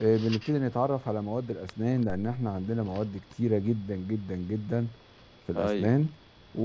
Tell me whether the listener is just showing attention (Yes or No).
Yes